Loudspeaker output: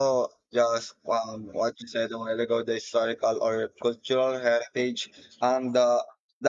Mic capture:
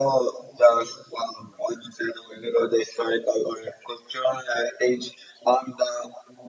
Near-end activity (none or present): none